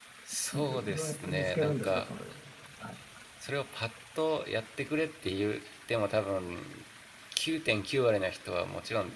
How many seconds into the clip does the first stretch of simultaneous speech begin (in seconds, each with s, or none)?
0.5 s